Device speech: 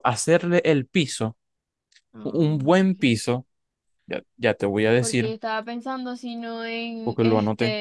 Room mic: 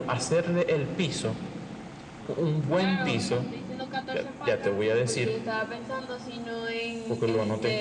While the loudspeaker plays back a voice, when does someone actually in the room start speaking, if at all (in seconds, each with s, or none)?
2.7 s